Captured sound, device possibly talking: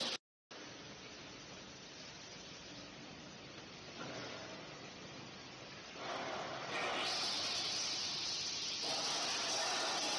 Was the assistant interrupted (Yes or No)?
No